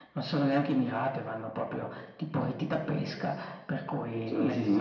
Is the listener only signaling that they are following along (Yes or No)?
No